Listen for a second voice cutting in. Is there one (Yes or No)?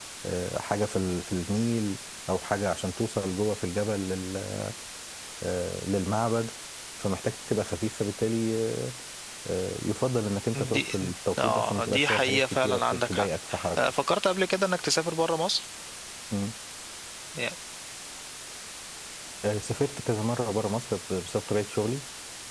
Yes